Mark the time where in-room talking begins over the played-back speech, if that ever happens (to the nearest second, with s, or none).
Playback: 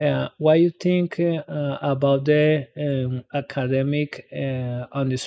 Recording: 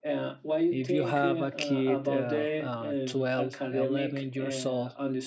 1 s